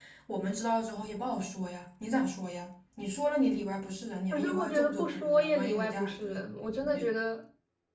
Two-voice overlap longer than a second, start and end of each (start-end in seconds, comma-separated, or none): 4.3-6.4